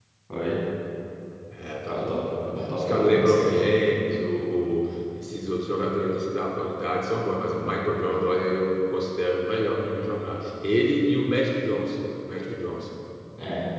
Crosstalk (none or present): present